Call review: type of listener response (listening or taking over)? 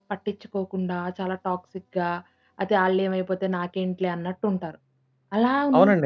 taking over